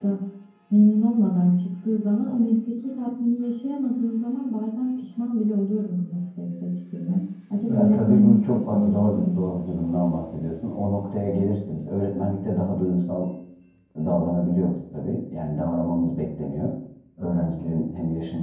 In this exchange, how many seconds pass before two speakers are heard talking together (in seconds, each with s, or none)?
7.7 s